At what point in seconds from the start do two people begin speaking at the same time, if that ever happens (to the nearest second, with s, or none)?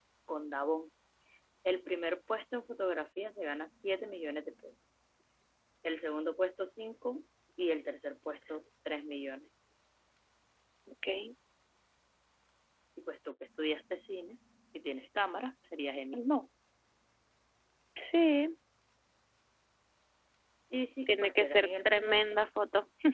21 s